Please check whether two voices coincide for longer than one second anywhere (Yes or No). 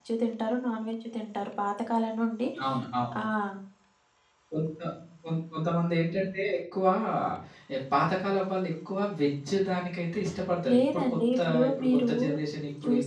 Yes